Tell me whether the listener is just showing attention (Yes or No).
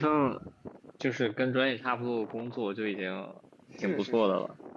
No